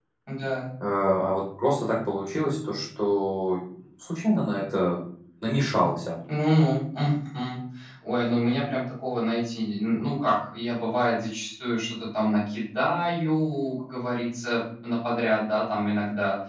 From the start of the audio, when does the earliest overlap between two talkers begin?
none

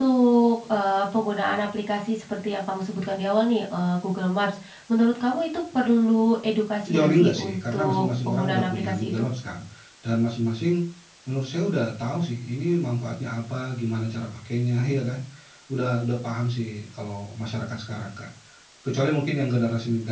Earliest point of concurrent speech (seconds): 6.8 s

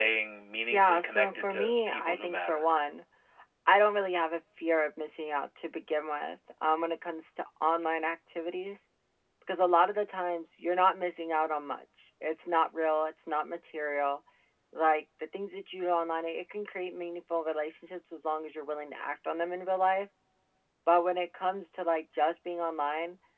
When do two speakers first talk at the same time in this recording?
0.7 s

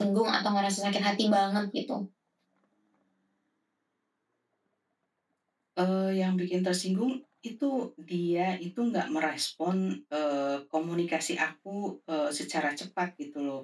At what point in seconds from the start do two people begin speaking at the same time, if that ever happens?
none

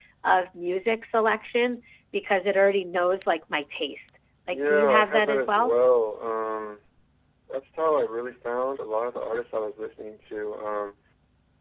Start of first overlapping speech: 4.5 s

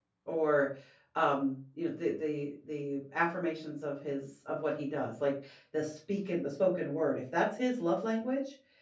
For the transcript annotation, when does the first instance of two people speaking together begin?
none

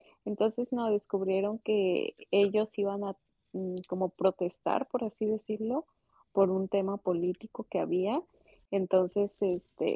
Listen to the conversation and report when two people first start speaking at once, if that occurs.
none

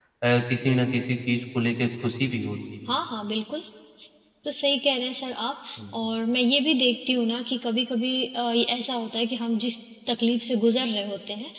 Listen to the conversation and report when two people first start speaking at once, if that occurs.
none

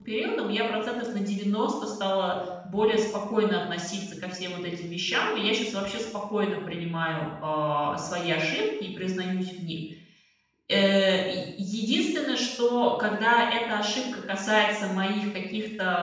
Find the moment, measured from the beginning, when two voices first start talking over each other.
none

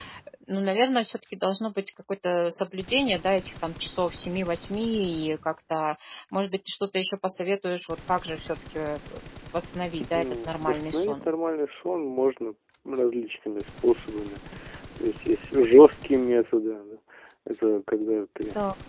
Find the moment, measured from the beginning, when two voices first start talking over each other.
10.0 s

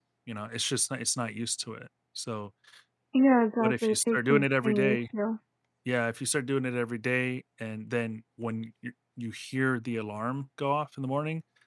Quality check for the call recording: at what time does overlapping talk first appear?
3.6 s

